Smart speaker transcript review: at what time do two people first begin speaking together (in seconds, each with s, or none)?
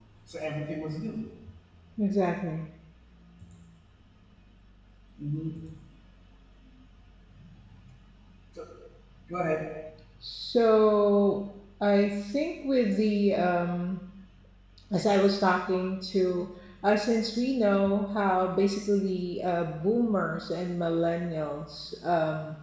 none